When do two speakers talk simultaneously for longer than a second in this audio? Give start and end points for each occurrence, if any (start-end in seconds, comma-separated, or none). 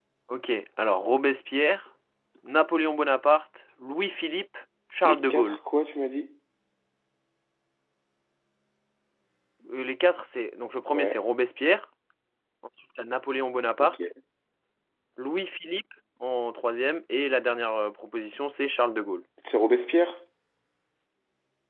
none